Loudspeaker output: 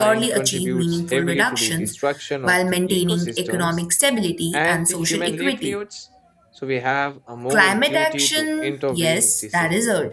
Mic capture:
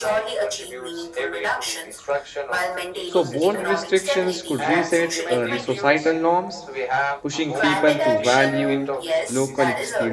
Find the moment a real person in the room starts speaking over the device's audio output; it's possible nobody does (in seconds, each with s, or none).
3.0 s